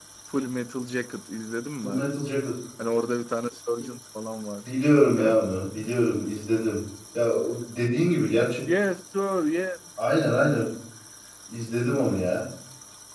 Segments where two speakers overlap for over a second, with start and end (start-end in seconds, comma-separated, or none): none